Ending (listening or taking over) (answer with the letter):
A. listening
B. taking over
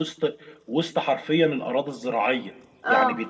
A